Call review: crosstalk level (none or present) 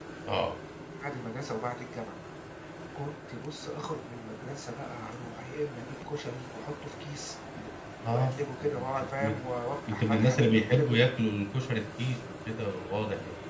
present